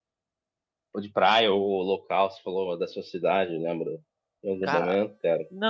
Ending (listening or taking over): taking over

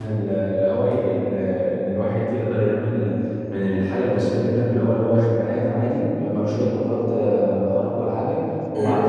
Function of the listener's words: listening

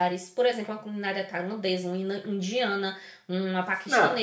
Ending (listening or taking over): taking over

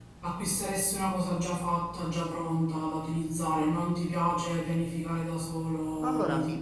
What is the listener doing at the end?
taking over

